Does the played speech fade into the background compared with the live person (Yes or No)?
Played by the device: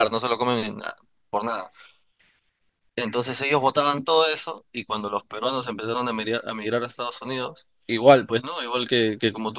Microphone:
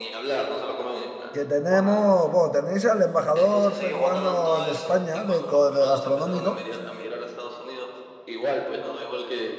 Yes